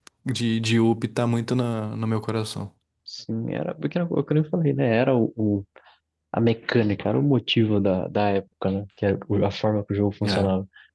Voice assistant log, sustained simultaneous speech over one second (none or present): none